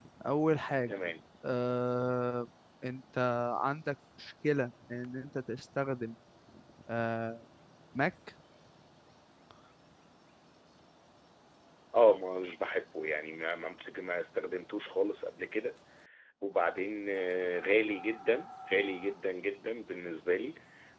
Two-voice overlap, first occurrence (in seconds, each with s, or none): none